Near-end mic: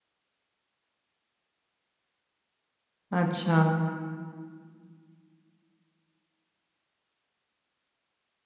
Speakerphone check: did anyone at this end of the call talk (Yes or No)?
Yes